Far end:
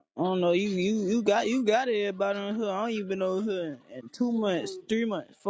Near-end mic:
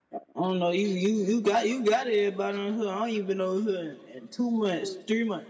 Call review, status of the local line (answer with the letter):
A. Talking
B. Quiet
B